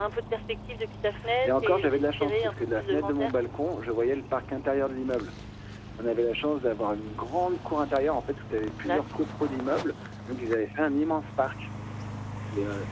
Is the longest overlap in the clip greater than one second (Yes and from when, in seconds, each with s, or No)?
Yes, from 1.4 s